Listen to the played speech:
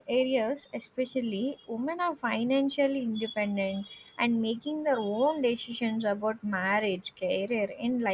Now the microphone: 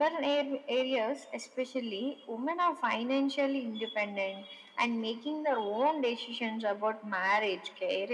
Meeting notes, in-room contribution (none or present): none